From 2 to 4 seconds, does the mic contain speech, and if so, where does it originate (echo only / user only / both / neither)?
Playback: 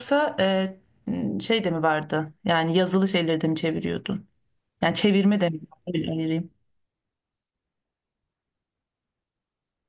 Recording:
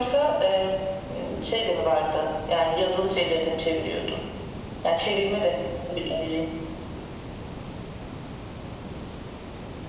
echo only